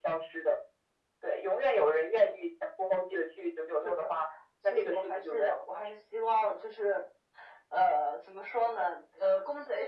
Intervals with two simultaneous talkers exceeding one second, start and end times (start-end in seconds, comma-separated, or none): 4.7-5.9